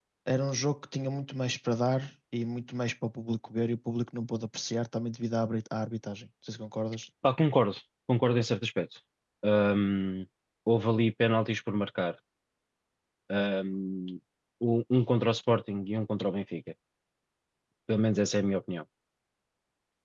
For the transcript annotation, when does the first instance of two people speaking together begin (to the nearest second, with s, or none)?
none